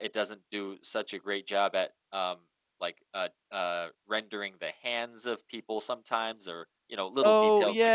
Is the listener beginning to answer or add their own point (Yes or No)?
Yes